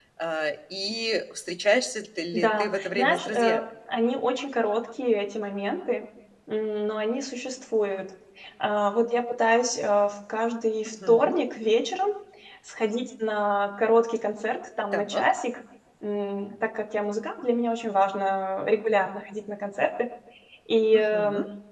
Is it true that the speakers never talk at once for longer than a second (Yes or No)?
No